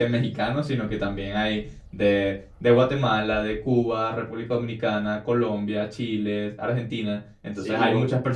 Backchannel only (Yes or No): Yes